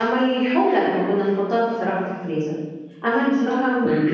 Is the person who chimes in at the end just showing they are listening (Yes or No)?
No